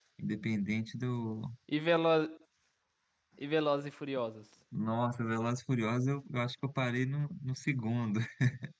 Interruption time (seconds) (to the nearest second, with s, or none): none